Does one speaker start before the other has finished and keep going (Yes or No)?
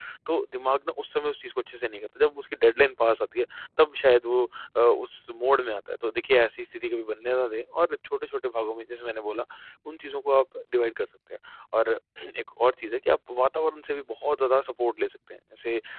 No